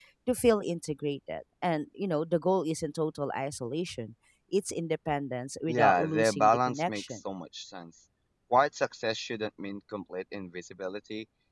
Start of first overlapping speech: 6 s

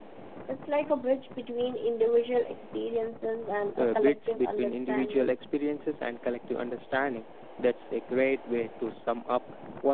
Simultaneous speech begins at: 4 s

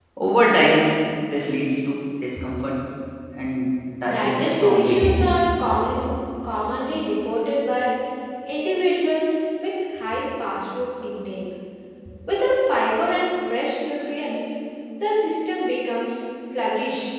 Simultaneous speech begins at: 4 s

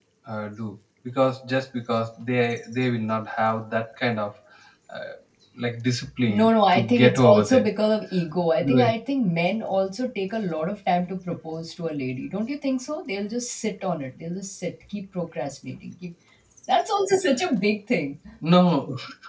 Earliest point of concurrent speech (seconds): 6 s

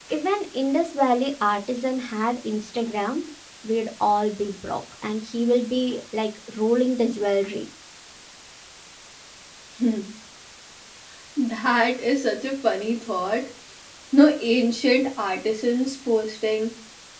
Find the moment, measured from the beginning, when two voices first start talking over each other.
none

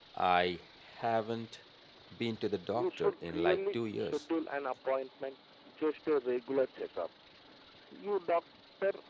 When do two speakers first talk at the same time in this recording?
3 s

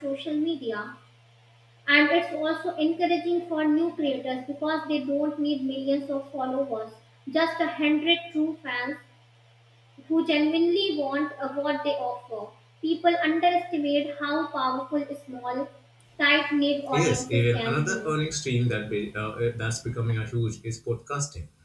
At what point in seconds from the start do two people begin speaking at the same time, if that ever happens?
17 s

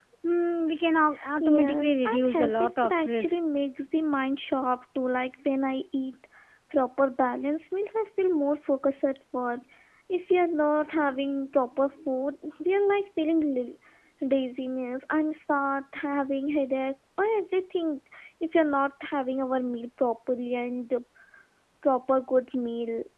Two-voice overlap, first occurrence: 1 s

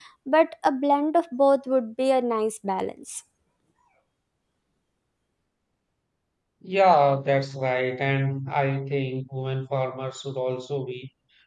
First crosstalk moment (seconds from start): none

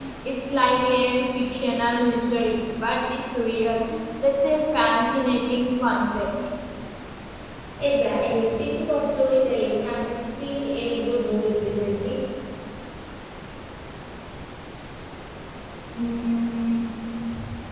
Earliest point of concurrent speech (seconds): none

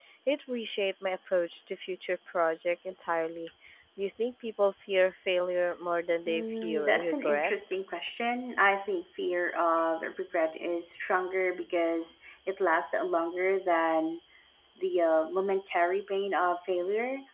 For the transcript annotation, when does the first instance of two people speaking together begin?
6 s

